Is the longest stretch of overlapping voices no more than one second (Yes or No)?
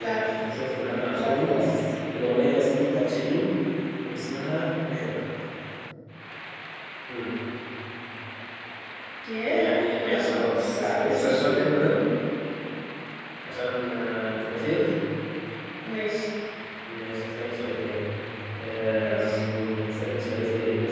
No